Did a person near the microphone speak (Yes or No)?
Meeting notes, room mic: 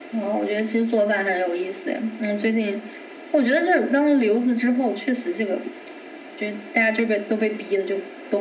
No